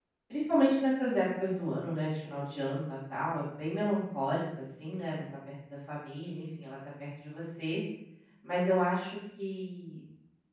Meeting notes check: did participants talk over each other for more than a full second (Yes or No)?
No